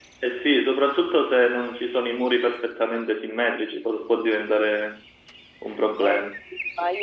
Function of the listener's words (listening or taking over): taking over